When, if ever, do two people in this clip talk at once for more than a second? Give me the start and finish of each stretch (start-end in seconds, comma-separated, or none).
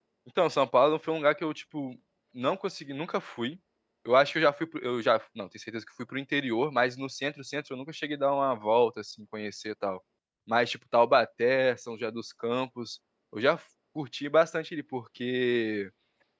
none